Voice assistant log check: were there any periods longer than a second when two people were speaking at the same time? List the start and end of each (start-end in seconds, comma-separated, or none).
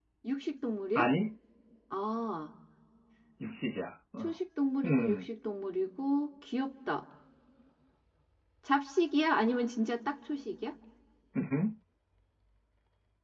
none